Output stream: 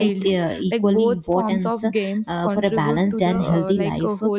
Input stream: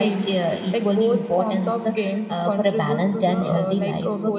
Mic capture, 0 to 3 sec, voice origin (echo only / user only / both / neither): echo only